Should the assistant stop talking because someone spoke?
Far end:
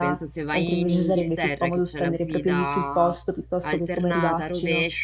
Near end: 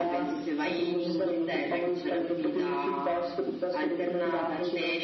No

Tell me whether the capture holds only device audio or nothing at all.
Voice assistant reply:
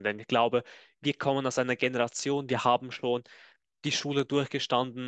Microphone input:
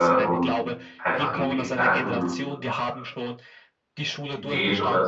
No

